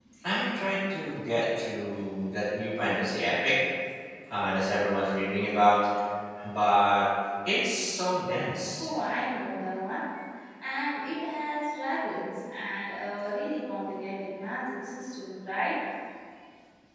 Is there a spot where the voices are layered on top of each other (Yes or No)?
No